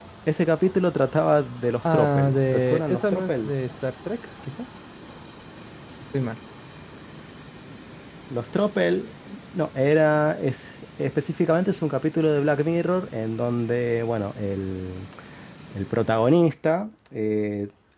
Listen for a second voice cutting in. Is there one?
Yes, from 1.8 s

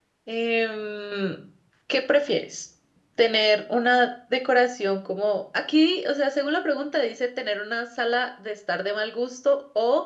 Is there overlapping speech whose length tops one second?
No

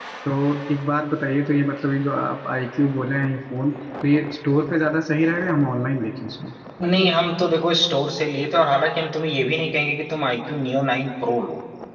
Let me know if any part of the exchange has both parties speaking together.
No

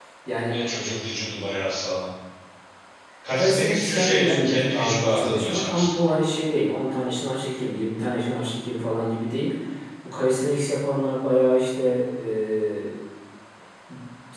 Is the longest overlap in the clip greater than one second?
Yes, from 3.3 s

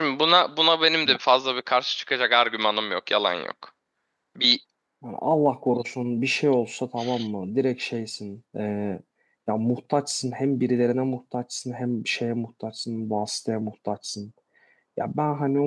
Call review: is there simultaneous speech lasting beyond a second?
No

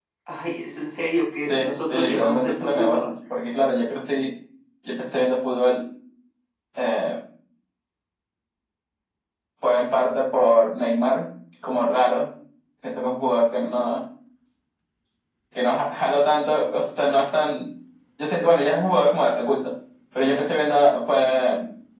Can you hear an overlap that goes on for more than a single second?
Yes, from 1.5 s

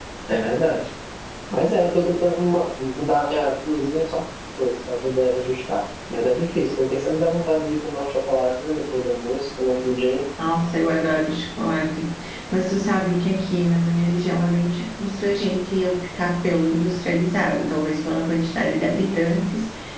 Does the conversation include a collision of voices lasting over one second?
No

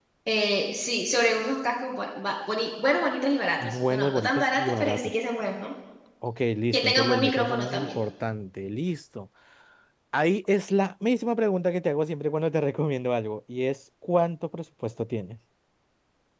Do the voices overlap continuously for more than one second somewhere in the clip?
Yes, from 3.6 s

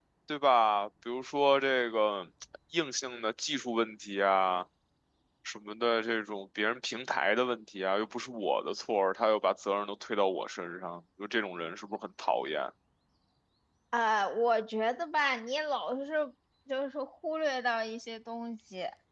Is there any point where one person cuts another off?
No

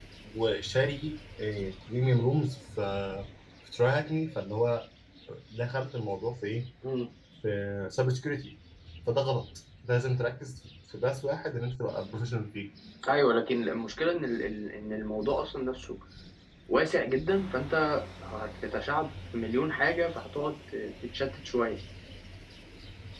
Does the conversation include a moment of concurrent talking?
No

